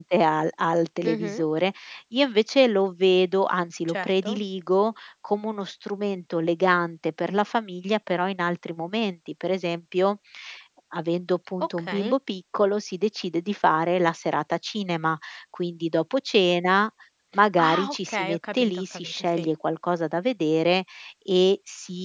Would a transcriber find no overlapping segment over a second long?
No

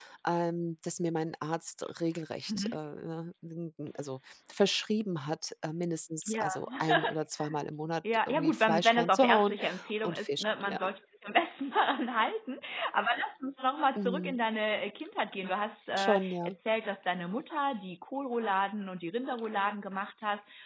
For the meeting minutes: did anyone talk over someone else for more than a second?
Yes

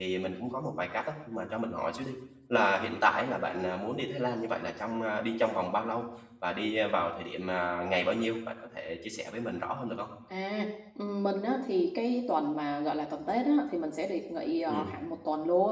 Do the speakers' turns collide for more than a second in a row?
No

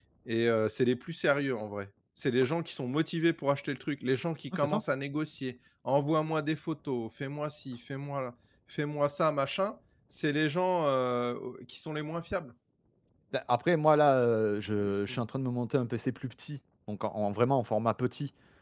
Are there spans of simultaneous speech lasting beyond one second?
No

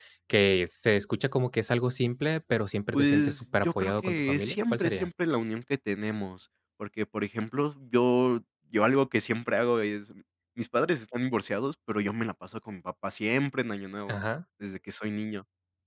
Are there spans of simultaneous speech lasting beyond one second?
Yes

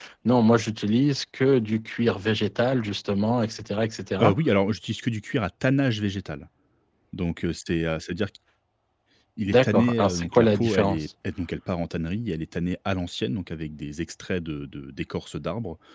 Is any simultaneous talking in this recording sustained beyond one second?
Yes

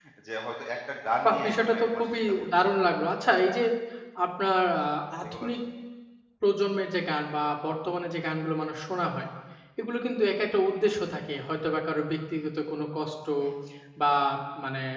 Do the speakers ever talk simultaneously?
Yes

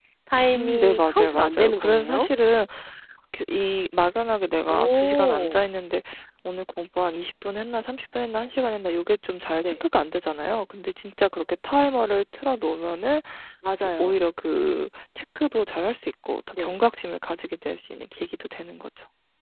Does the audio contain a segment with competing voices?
Yes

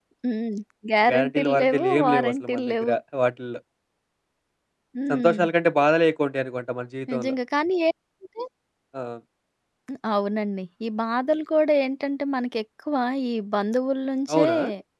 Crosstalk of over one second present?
Yes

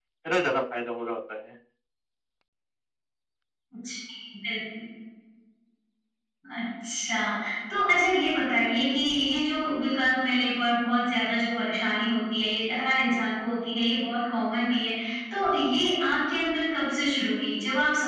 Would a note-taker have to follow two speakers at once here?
No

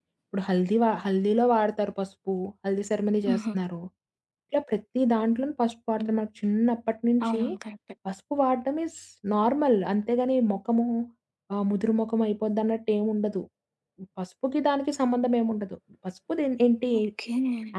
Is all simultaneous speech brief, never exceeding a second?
Yes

